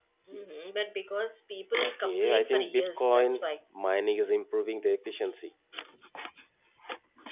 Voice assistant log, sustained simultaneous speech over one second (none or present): present